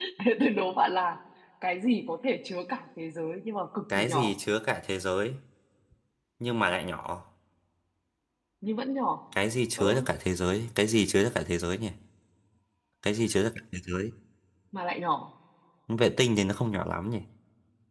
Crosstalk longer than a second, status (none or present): none